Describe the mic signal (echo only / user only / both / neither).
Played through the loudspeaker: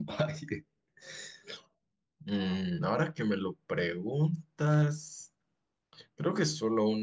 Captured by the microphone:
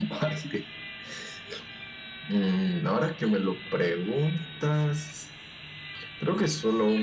echo only